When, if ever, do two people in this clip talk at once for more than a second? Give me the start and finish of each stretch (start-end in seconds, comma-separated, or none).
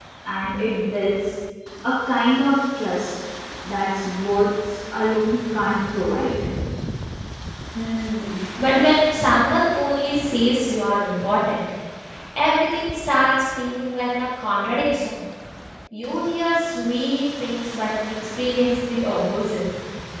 none